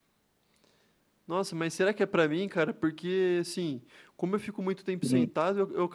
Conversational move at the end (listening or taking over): listening